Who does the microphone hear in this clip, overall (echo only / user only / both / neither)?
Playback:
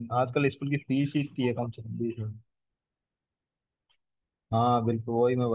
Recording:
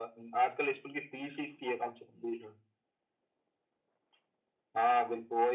echo only